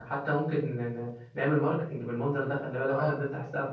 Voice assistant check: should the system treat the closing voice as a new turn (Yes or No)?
Yes